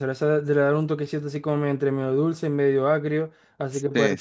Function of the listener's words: listening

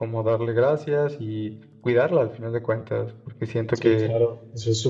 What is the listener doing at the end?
taking over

